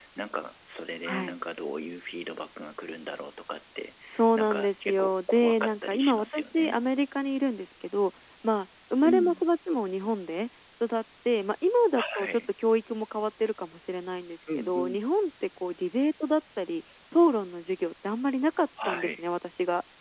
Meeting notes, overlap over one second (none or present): present